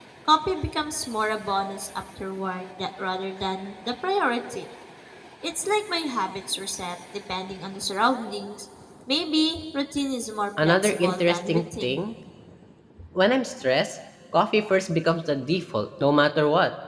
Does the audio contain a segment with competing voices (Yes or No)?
Yes